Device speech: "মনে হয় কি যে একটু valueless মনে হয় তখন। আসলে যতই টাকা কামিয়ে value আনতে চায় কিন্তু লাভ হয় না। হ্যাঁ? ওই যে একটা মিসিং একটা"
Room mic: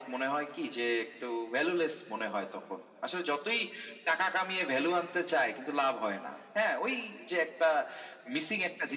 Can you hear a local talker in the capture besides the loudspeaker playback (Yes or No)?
No